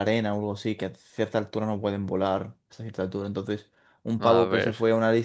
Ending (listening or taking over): listening